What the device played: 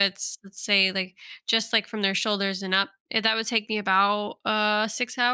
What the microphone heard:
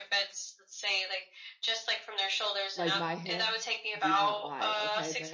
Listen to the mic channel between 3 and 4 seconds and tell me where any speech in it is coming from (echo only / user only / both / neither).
both